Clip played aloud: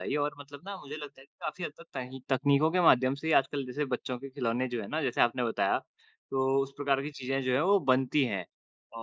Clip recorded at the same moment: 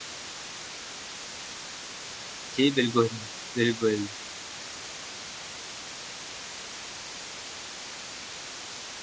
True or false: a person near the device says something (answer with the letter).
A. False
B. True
B